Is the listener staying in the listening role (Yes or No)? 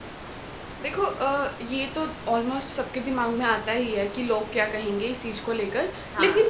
Yes